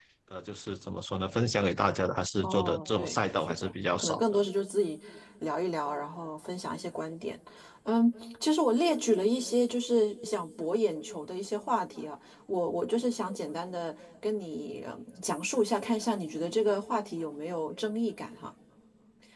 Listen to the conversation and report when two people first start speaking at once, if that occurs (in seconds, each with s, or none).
2.4 s